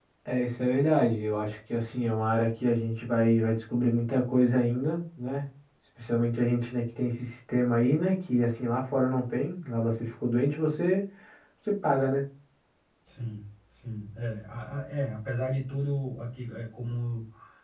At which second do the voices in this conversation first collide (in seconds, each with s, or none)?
none